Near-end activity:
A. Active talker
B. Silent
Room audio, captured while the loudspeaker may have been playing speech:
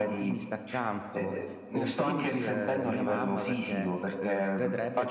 A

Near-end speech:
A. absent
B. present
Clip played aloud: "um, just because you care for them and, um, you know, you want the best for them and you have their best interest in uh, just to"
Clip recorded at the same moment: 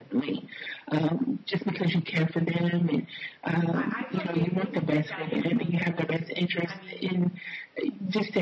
B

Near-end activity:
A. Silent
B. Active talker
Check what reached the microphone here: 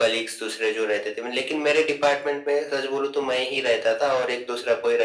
A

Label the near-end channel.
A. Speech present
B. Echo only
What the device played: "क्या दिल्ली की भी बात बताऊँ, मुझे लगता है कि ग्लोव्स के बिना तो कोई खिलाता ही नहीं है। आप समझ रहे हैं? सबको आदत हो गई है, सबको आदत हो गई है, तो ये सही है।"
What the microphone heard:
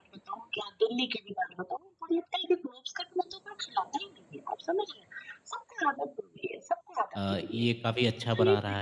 A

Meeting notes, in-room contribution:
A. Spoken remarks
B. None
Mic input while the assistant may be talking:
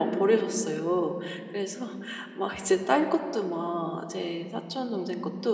B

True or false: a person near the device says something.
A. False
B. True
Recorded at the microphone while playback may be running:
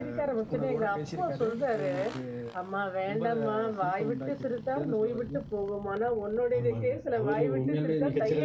B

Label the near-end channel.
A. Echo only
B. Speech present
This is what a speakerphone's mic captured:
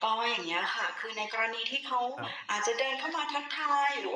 B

